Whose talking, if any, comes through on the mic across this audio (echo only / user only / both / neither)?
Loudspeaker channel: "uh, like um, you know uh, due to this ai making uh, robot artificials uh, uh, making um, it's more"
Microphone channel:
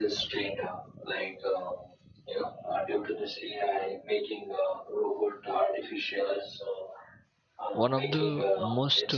both